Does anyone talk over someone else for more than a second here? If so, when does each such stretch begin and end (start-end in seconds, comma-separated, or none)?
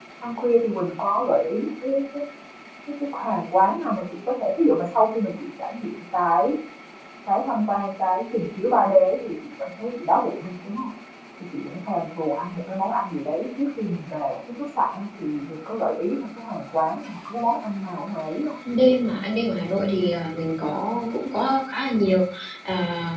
none